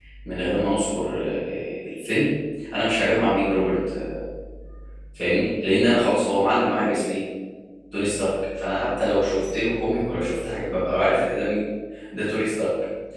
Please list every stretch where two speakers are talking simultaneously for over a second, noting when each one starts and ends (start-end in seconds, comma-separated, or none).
none